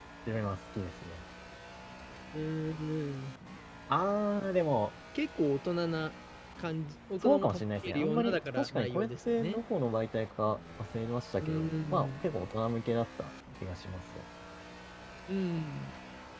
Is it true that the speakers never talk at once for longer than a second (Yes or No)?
No